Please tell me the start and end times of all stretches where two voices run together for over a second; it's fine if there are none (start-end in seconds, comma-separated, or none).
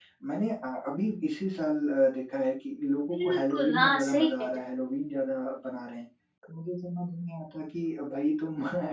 3.1-4.6